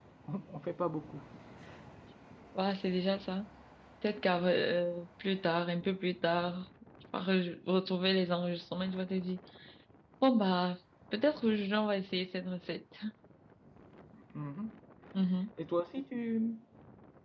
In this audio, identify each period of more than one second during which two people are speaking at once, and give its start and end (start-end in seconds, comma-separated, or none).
none